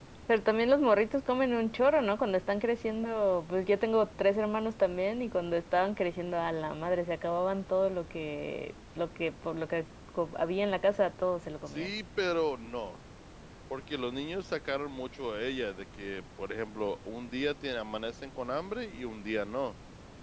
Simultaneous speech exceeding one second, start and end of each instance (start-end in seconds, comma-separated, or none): none